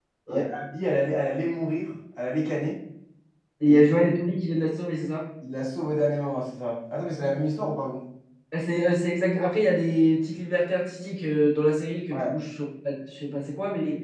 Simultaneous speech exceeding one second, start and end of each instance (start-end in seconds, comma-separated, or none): none